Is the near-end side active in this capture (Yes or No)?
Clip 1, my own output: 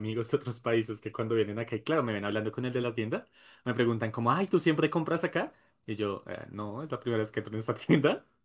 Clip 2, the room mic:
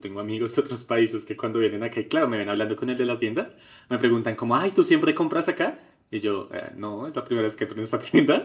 No